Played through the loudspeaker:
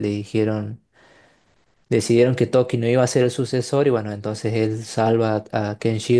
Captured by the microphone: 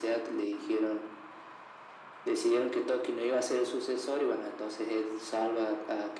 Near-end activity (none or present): none